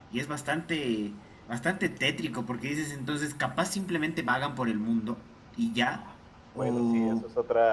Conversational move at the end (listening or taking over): taking over